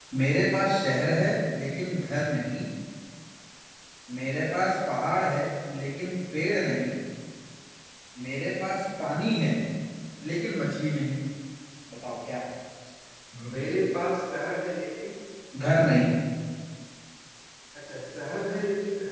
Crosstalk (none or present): none